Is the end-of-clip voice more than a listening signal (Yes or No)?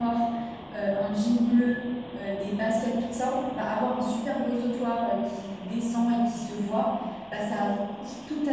No